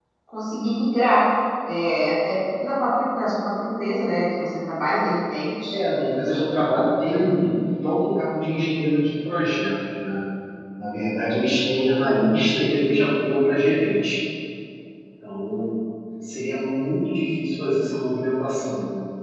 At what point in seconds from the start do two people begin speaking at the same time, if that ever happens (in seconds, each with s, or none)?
none